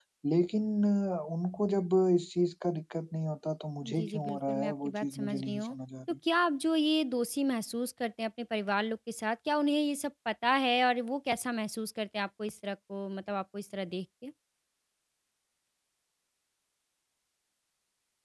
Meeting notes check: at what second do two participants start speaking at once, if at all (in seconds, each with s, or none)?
3.8 s